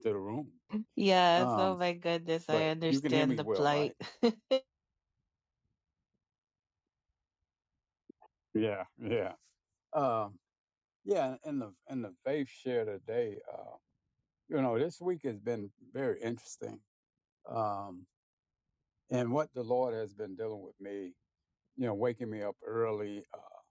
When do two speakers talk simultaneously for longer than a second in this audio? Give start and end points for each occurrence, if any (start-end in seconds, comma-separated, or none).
2.5-3.9